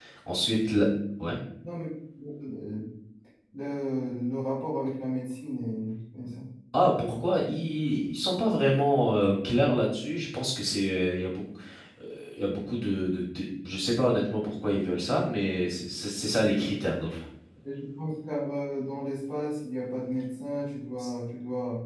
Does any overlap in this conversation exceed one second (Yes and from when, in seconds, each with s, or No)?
No